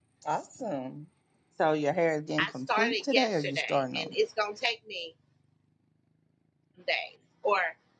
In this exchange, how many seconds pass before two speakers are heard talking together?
2.4 s

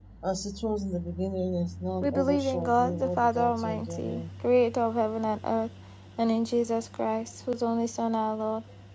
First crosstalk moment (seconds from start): 2.0 s

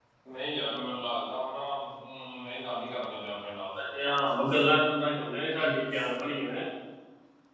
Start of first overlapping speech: none

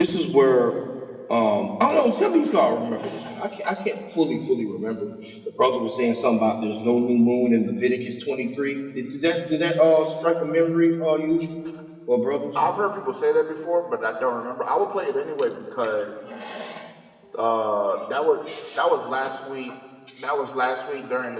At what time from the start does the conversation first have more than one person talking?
none

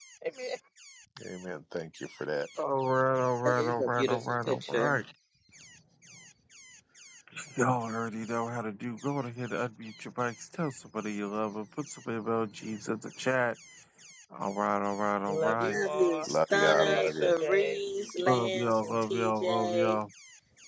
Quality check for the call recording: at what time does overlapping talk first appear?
3.4 s

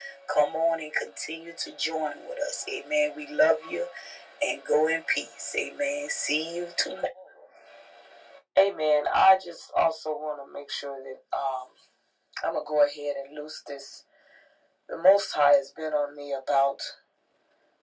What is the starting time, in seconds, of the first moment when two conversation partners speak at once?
none

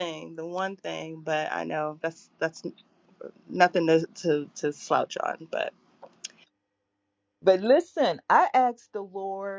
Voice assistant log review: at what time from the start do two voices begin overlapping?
none

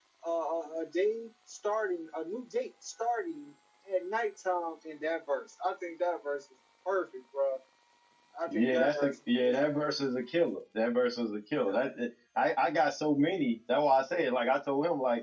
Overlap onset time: 8.5 s

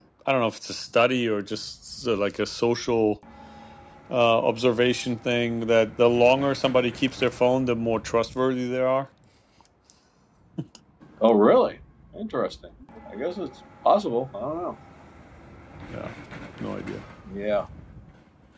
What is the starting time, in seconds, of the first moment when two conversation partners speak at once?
none

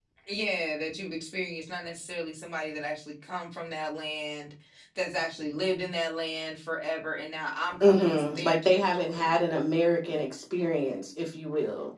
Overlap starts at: 7.8 s

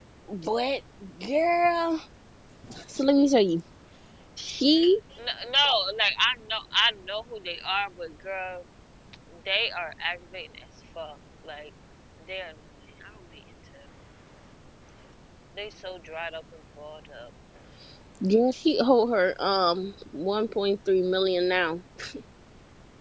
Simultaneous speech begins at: none

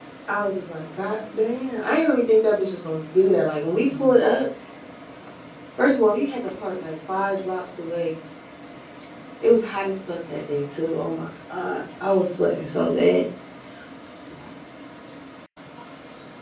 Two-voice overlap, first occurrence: none

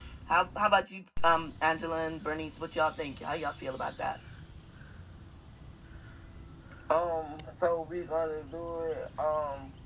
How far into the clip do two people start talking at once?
none

